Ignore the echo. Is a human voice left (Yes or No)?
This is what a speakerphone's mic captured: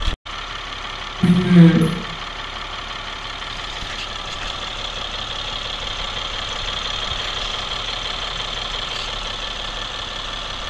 Yes